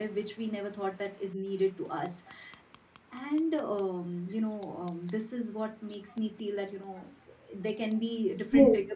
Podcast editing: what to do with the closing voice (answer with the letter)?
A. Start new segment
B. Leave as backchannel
A